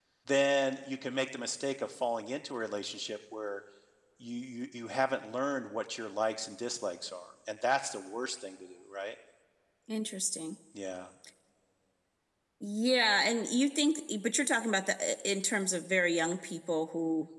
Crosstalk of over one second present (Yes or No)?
No